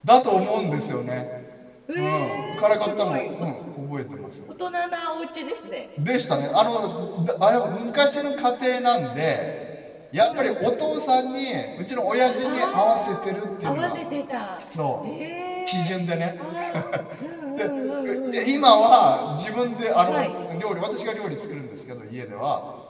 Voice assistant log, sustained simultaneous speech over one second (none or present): present